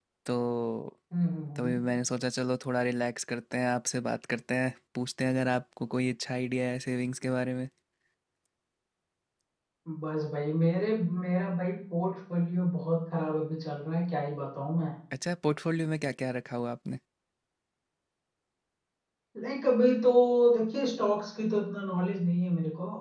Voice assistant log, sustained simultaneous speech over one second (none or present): none